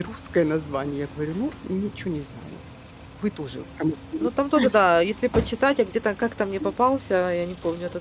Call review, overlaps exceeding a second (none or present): none